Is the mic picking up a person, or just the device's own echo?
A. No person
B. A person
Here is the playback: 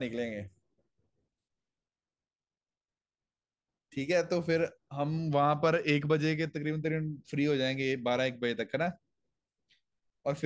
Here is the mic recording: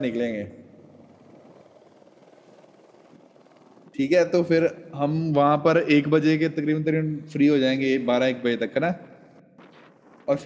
A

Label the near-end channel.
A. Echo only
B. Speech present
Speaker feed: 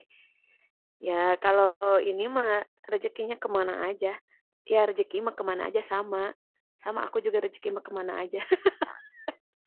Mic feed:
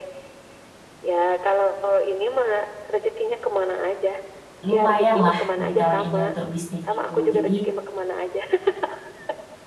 B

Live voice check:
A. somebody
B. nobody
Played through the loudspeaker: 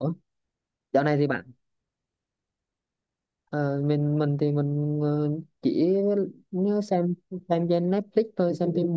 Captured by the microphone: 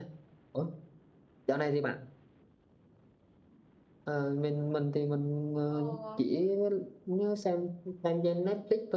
A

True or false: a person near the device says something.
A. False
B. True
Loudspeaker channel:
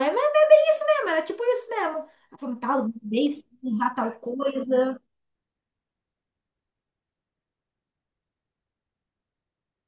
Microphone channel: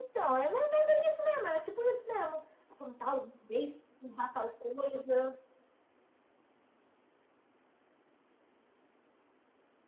A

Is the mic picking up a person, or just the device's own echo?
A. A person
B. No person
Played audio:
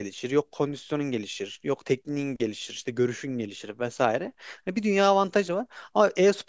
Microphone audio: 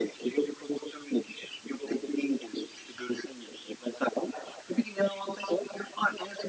B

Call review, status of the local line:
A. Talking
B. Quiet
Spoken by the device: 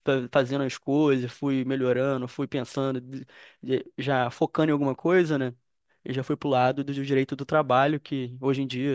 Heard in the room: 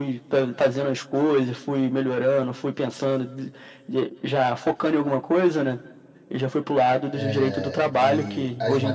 A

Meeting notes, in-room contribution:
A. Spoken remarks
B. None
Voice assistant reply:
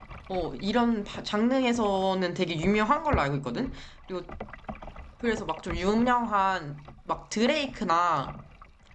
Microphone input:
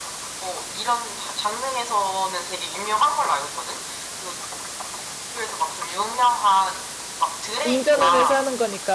A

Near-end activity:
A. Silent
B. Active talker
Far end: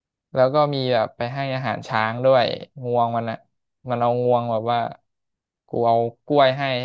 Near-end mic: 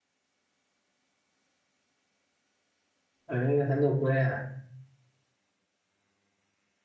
B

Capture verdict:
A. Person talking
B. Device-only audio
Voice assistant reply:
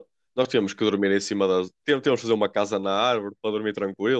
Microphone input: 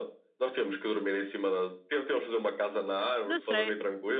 A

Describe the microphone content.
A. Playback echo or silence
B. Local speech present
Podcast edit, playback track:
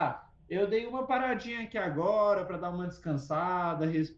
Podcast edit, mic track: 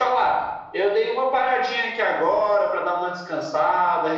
A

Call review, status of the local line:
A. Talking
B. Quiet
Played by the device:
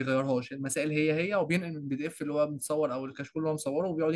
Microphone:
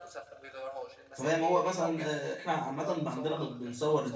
A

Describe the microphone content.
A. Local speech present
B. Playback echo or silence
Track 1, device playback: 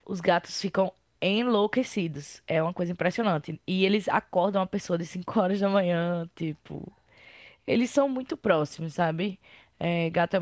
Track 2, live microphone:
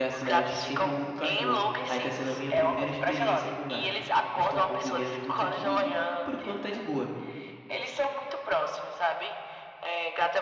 A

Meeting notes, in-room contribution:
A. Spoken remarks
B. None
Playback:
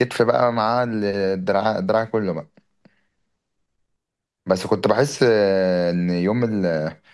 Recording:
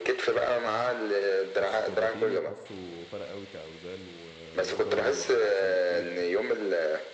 A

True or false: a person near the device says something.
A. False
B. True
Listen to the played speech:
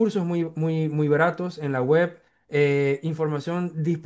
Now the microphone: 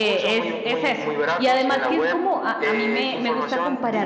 B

